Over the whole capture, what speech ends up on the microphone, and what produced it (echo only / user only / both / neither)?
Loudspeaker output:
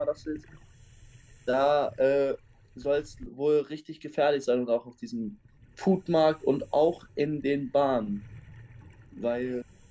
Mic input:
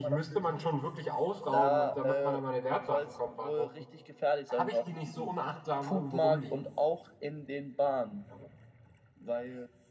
both